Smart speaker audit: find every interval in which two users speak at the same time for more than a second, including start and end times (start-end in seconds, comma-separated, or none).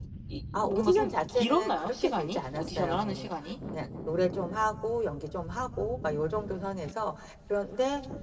0.7-3.3